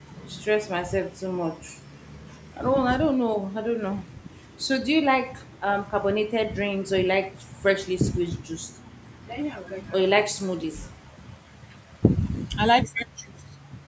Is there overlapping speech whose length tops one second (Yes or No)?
No